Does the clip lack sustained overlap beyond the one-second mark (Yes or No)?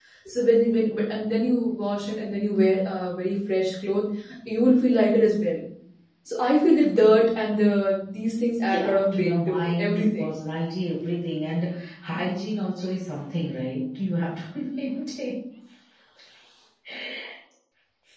No